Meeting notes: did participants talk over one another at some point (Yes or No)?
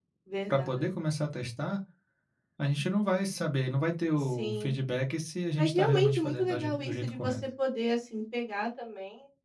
Yes